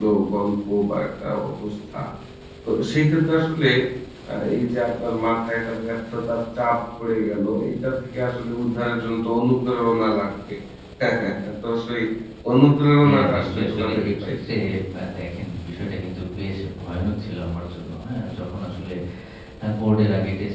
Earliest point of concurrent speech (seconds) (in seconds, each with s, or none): 13.0 s